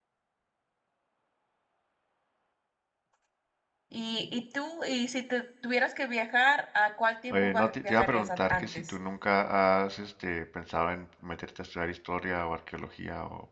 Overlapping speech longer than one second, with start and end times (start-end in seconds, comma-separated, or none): 7.3-9.0